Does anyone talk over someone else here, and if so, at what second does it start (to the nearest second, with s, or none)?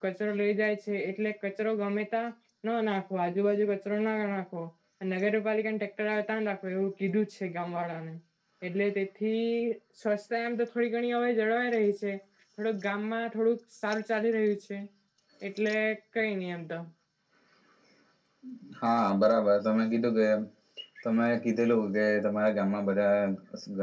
none